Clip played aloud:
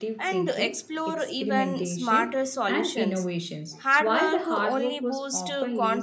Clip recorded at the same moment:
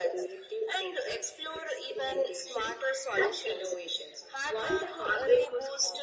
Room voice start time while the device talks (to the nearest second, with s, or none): none